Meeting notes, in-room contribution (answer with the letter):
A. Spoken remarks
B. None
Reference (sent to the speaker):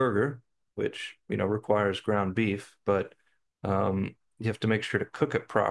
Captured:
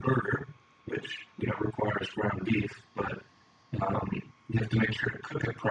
B